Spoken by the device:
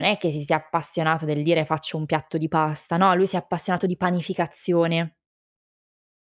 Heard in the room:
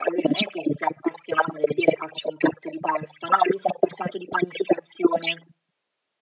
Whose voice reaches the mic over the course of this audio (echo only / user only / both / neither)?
echo only